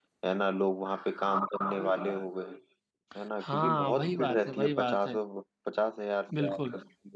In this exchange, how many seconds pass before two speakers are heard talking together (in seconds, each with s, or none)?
3.4 s